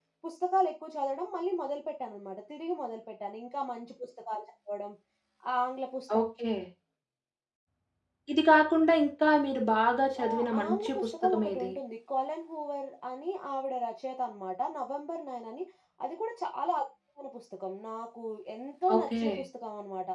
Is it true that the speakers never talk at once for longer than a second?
No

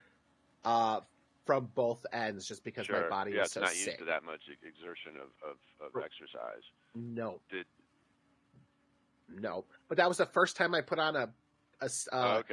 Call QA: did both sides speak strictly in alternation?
No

